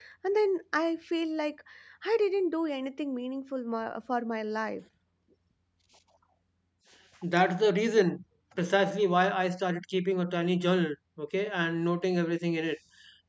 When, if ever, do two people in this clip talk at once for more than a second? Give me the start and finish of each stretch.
none

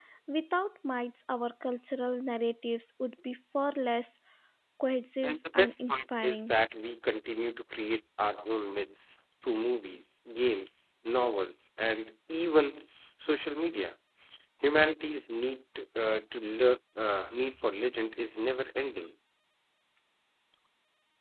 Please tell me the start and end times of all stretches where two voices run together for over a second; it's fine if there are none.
5.2-6.6

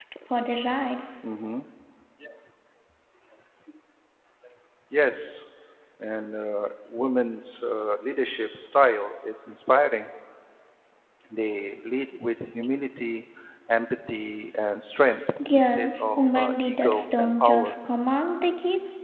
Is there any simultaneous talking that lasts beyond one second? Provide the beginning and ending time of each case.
15.5-17.8

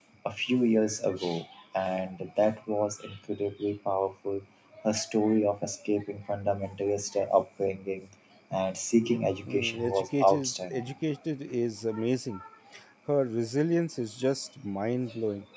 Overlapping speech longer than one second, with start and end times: 9.4-10.9

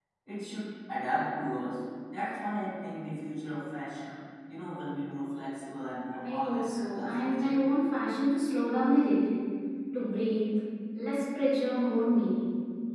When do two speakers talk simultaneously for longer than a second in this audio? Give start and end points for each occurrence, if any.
6.2-7.6

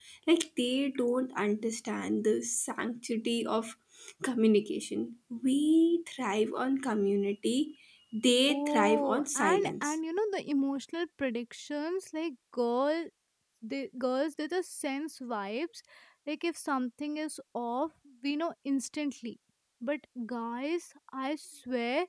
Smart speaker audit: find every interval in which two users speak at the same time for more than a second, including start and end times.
8.5-10.0

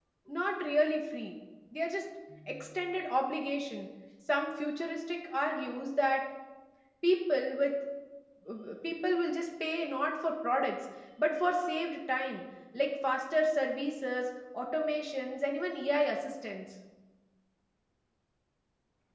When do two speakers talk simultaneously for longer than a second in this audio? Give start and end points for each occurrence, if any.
none

